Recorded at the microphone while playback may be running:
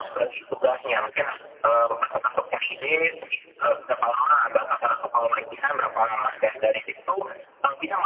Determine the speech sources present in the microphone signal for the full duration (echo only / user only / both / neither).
echo only